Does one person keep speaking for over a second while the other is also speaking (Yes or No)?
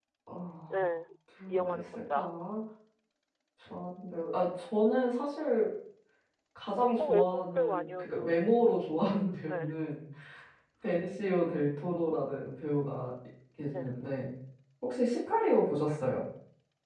Yes